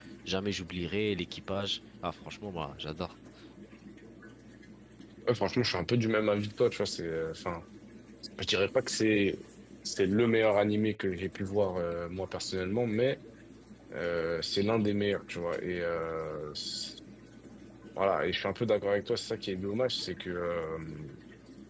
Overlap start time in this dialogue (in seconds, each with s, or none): none